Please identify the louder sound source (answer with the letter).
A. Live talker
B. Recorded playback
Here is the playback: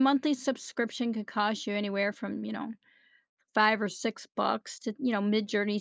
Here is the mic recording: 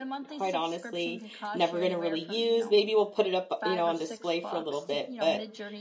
A